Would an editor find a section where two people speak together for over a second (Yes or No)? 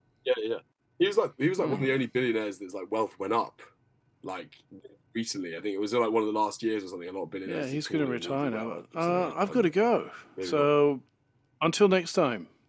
Yes